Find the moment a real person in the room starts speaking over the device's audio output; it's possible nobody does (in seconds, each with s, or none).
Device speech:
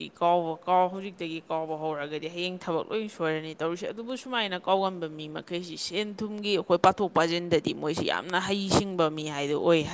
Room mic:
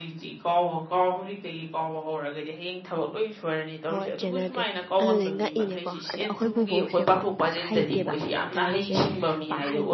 3.8 s